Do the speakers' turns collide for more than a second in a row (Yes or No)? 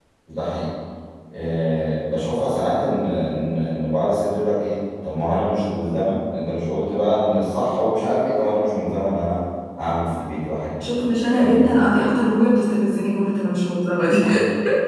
Yes